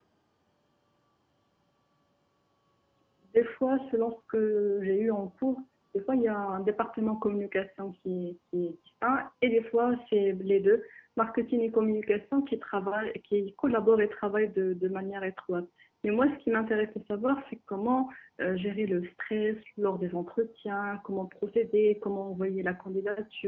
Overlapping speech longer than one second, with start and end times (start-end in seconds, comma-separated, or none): none